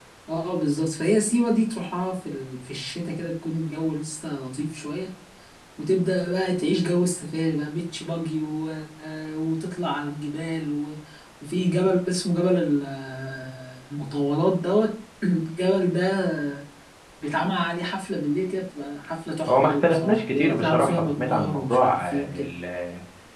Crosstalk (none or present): present